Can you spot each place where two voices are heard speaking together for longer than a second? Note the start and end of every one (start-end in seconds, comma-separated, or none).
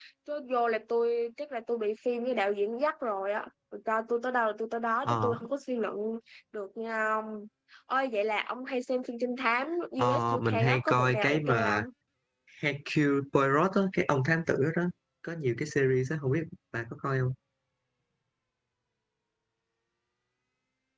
10.0-11.8